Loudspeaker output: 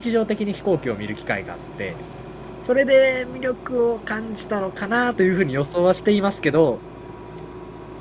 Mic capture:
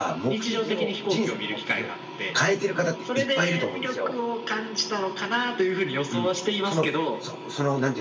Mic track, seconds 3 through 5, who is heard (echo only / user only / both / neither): both